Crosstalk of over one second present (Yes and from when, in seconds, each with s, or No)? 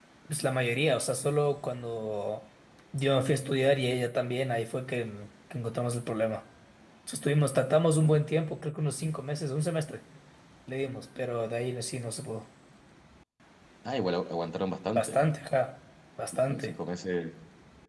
No